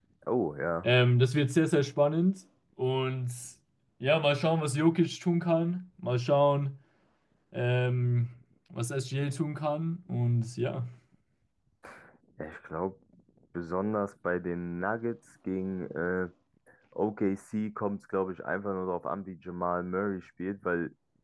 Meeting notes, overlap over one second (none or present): none